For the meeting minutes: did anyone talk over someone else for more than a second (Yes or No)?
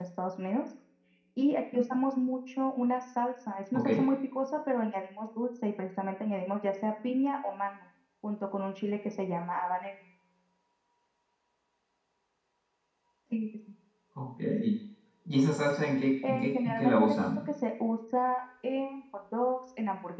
Yes